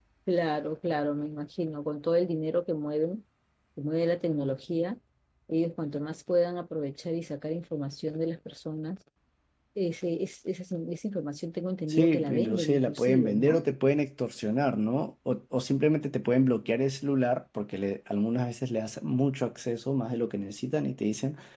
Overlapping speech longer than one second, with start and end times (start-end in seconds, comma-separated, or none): 11.9-13.6